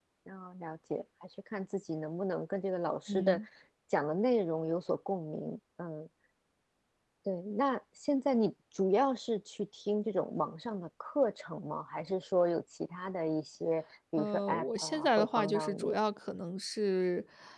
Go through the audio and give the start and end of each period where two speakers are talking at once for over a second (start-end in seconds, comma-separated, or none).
14.2-16.0